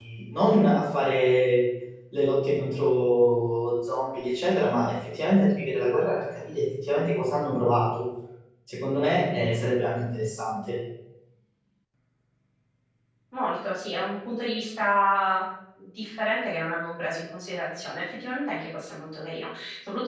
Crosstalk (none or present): none